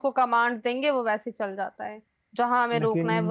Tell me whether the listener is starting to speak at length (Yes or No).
No